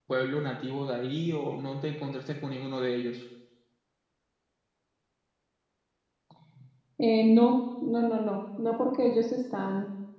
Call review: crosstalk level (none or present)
none